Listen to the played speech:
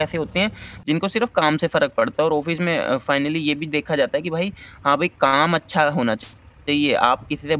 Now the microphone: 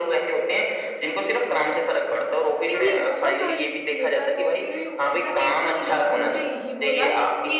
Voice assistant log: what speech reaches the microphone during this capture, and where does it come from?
both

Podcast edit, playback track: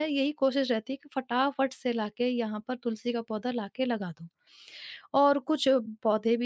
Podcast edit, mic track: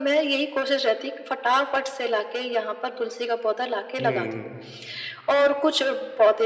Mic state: both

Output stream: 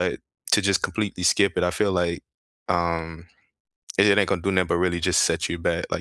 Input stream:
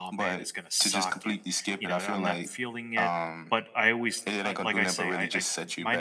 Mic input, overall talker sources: both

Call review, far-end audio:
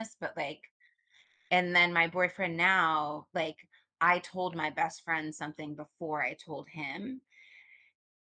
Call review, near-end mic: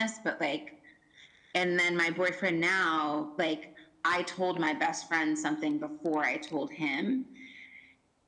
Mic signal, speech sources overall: echo only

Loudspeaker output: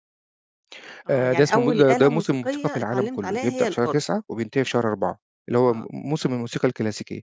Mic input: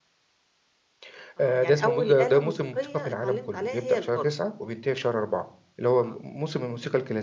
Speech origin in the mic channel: echo only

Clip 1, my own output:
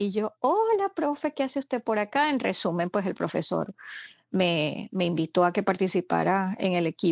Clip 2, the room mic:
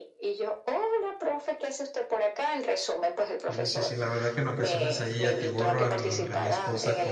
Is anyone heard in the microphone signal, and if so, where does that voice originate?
both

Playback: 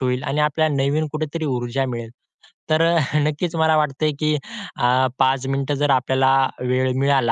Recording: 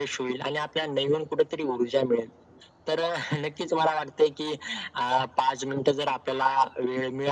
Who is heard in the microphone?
echo only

